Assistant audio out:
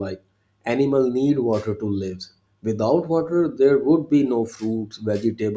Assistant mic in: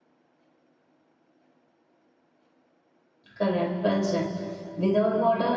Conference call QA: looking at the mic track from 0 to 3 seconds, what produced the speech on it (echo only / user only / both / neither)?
neither